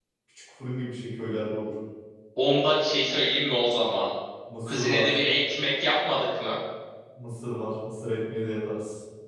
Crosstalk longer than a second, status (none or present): none